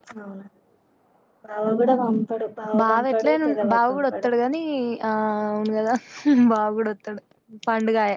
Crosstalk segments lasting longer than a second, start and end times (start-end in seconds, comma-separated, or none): 2.8-4.3